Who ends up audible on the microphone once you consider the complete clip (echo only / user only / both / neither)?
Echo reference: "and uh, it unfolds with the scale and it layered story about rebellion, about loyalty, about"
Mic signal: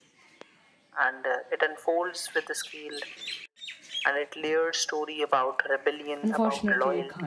both